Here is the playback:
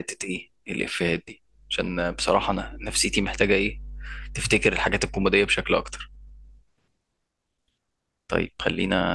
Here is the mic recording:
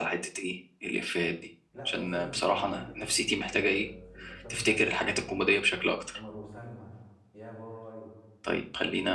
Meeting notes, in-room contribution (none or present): present